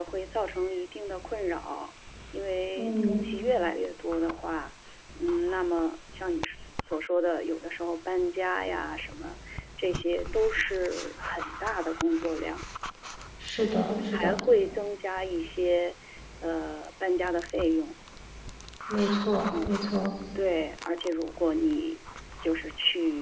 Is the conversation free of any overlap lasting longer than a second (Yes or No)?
Yes